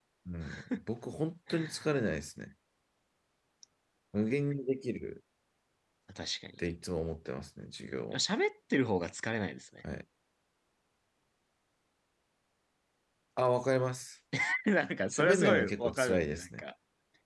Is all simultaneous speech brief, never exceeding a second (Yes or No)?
No